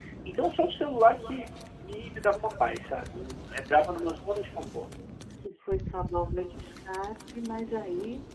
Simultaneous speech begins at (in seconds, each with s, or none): none